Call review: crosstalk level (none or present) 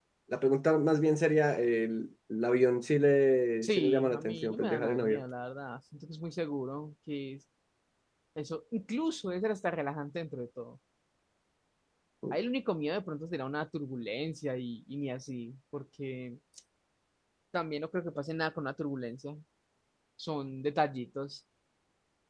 present